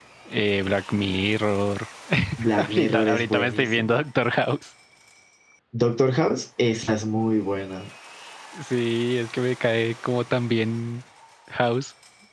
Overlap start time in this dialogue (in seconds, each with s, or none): 2.6 s